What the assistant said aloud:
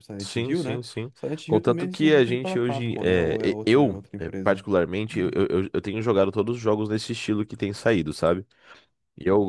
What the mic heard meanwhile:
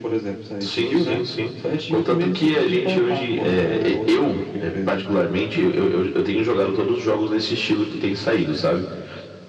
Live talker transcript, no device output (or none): none